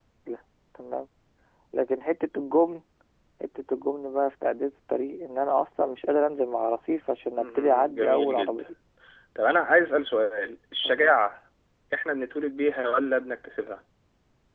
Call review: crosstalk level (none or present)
present